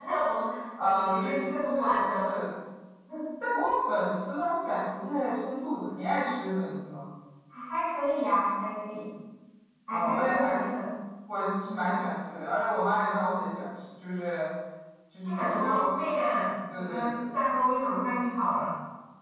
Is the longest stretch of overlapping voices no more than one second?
No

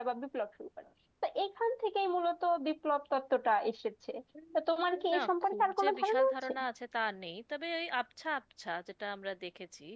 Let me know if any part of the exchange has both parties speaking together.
Yes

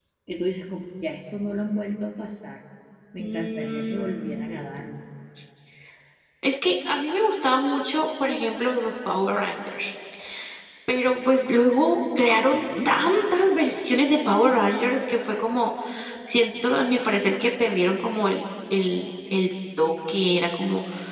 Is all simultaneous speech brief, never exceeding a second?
No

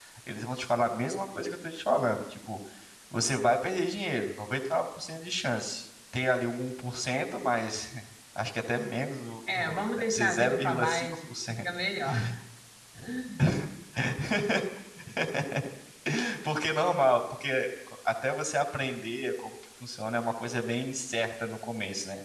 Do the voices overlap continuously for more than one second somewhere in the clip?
Yes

